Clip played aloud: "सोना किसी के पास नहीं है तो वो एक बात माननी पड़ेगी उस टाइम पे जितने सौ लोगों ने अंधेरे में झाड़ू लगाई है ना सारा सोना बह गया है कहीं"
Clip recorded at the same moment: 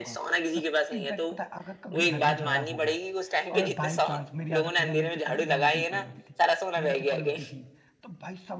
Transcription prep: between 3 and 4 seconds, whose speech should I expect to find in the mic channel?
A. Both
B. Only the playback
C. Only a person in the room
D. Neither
A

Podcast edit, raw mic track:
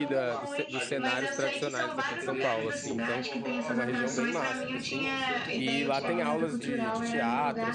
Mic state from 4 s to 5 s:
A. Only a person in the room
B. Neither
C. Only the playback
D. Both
D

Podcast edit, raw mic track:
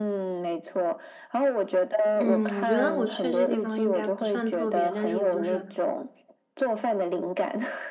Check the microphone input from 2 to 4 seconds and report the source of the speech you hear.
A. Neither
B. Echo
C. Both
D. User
C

